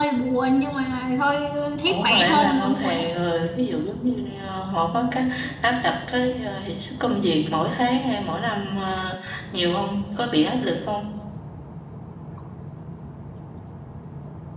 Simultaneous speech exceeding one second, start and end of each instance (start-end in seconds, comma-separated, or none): 1.9-3.1